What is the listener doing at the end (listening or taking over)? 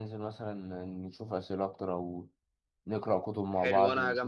taking over